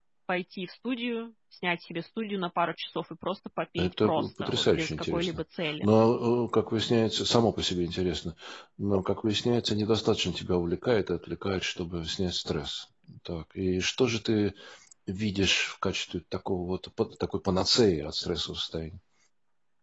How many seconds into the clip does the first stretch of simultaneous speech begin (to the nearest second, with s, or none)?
4 s